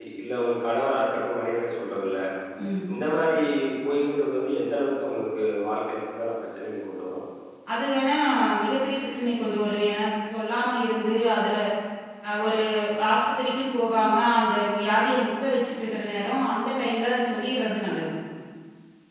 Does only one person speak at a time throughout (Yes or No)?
Yes